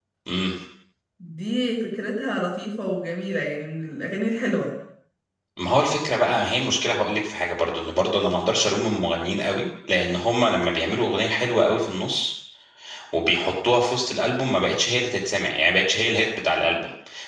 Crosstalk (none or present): none